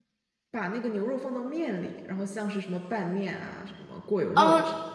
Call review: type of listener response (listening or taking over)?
taking over